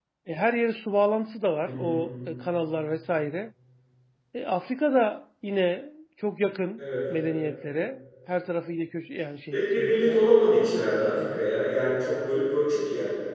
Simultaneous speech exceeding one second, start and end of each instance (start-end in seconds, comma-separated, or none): 9.5-11.4